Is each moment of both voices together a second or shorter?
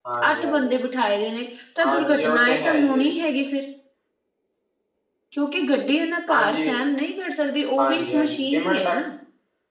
No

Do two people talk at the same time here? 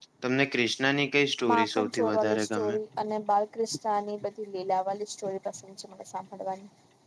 Yes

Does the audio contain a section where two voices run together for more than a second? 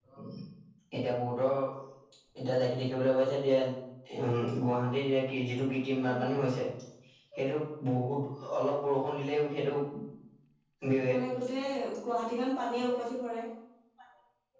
No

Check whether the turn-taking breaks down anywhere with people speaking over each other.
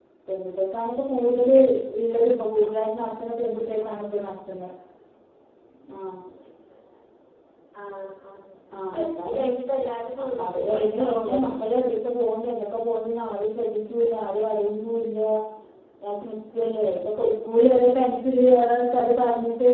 Yes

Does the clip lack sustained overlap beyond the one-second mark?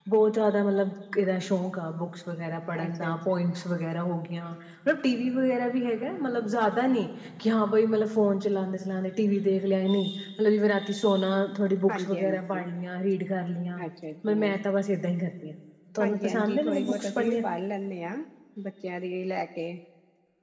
No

